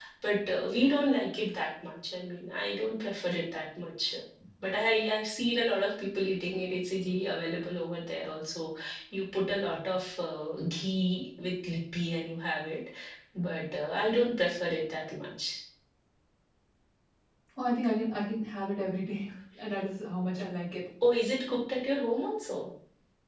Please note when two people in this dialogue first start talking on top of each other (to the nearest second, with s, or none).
none